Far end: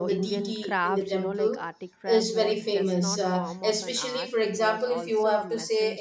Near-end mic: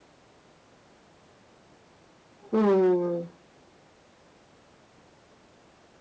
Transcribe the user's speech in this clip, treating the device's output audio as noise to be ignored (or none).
Hmm.